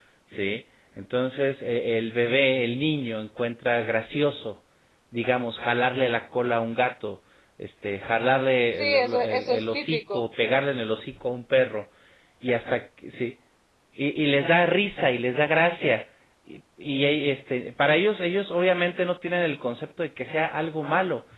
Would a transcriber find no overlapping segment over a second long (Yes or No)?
No